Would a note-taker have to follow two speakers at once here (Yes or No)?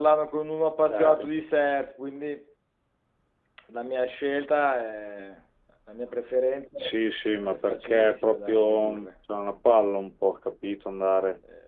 Yes